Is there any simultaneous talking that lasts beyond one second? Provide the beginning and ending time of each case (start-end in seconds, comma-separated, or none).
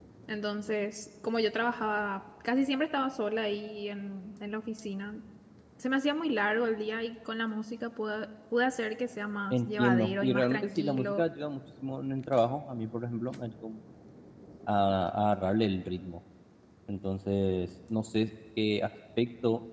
9.5-11.2